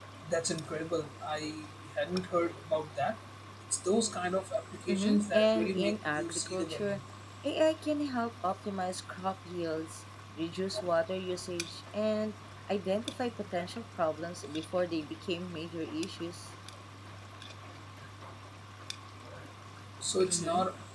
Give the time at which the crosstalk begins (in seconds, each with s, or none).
4.9 s